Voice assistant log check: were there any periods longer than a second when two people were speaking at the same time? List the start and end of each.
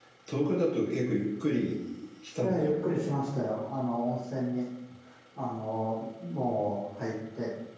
none

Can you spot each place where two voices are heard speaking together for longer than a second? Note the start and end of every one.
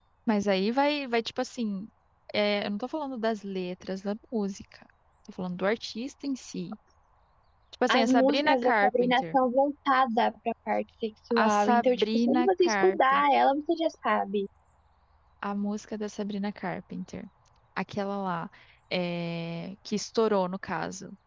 7.9-9.4, 11.3-13.2

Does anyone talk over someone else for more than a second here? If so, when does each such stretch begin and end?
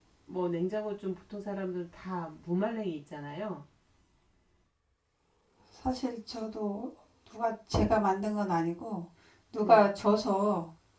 none

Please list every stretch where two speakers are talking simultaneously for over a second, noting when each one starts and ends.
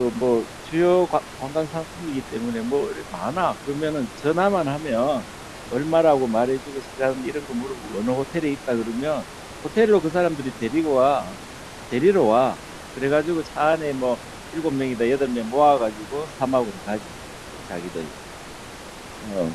none

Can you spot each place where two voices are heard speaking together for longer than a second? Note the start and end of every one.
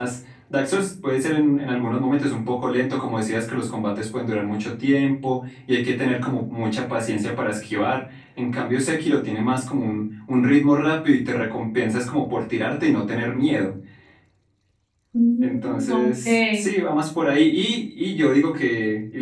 15.4-16.6

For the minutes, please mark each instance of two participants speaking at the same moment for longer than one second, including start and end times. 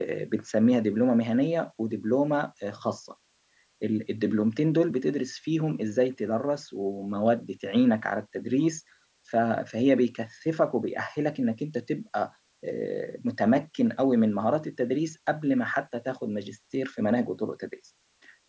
none

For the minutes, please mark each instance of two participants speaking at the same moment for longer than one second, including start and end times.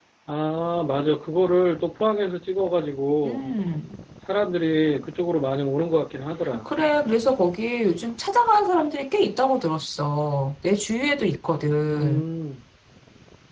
none

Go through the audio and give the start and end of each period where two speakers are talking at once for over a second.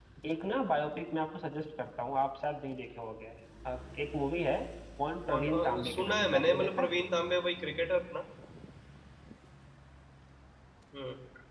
5.3-6.9

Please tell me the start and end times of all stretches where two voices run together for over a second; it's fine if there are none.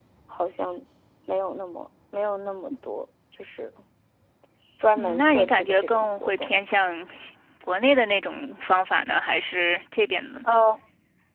5.0-6.5

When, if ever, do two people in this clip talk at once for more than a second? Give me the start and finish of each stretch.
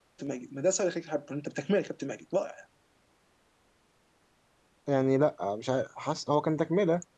none

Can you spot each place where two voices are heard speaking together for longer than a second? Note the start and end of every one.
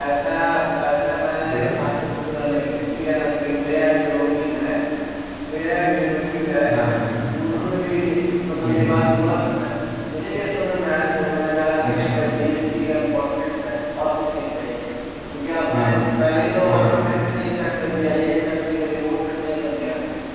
none

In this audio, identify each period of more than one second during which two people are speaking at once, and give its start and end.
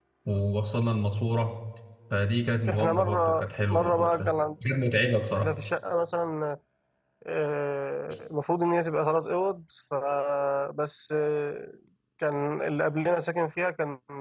2.7-4.4

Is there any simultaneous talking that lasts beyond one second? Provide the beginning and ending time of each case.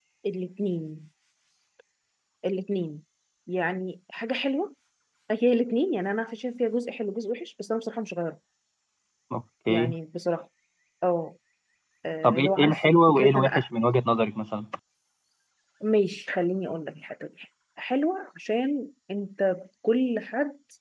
12.2-13.7

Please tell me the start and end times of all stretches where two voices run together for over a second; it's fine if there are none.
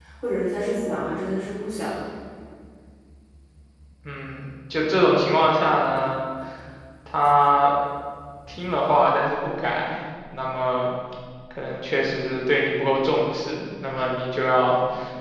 none

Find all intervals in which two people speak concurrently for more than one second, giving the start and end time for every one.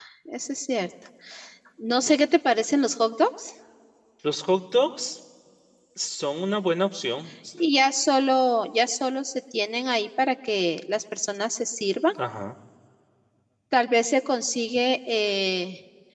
none

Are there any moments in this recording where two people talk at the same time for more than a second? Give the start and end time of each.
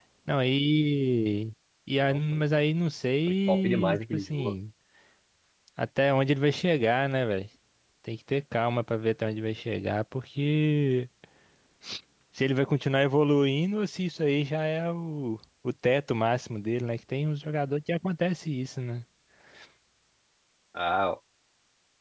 3.3-4.5

